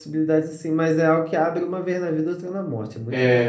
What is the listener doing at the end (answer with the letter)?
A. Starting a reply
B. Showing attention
A